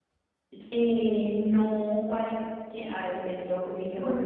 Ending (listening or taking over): taking over